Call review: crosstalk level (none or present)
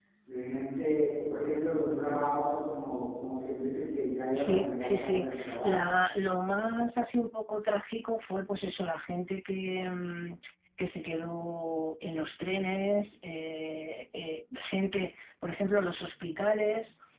present